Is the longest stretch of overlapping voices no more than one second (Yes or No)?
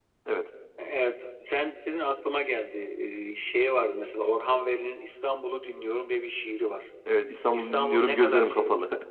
No